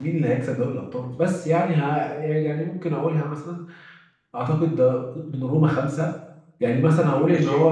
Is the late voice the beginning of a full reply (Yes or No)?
No